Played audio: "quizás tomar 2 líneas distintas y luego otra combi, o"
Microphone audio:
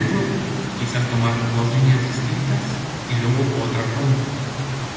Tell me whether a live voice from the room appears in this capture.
No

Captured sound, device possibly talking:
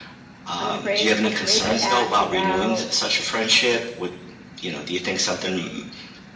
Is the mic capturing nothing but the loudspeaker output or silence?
No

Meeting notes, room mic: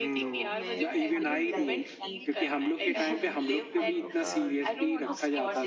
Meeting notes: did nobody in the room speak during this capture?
No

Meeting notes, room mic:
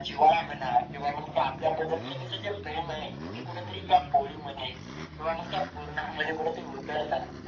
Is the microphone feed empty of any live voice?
Yes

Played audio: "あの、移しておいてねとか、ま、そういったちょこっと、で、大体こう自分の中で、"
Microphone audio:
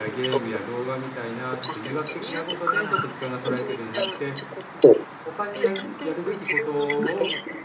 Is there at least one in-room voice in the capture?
Yes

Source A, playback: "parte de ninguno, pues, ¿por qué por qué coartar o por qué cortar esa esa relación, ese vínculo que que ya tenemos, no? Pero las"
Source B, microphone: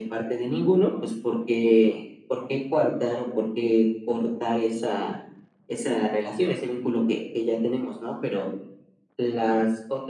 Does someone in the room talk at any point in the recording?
No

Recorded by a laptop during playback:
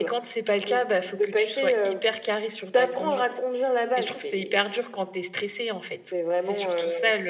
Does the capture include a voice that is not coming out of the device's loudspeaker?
Yes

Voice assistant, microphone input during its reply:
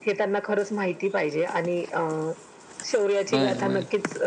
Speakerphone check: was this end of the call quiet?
No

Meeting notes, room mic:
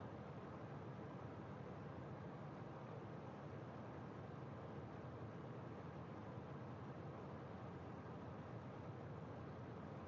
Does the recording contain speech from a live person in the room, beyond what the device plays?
No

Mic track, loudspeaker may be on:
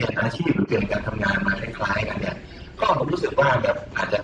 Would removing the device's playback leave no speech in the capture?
Yes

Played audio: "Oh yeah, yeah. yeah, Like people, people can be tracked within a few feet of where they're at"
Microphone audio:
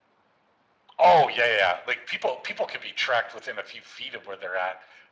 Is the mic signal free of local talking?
Yes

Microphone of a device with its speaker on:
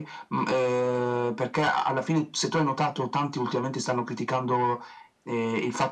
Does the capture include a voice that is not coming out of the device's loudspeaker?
No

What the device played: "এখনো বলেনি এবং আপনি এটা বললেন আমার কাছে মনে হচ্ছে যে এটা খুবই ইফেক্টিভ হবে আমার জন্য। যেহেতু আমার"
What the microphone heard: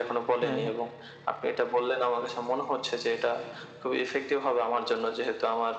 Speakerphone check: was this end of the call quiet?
No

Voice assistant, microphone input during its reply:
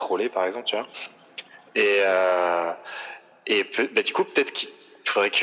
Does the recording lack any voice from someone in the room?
Yes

